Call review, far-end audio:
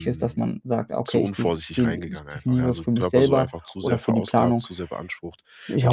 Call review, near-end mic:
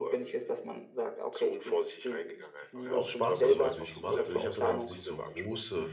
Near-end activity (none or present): present